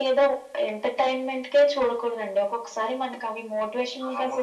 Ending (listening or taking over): taking over